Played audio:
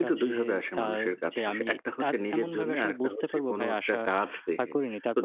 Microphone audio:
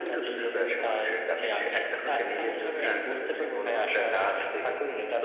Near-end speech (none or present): none